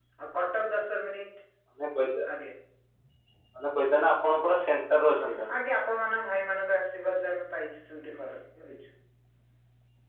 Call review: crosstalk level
none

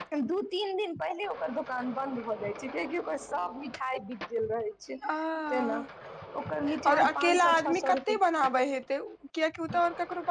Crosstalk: present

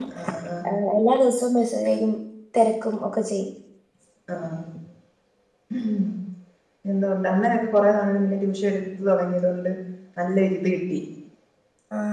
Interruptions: none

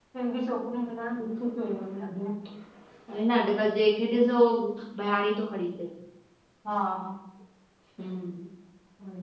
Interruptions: none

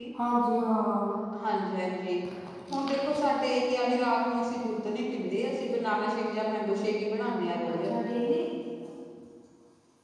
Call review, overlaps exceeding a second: none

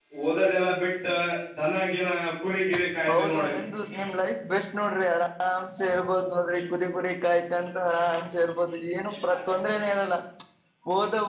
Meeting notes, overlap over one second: none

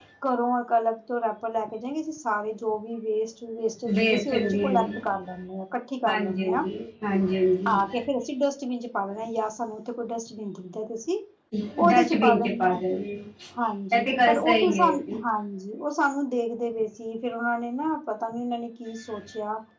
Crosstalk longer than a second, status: present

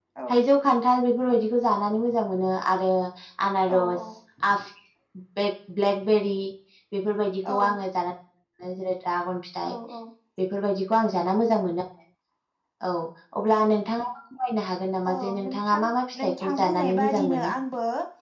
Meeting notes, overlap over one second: present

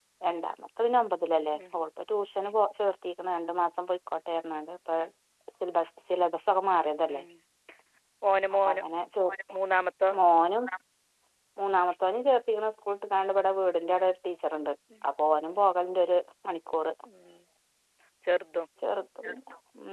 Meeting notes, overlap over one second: none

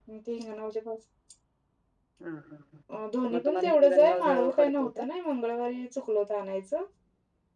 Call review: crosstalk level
present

